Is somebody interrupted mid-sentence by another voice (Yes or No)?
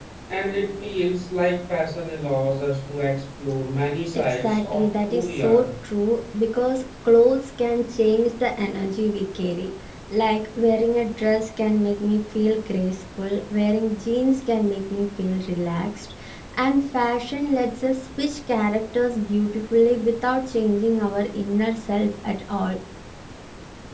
Yes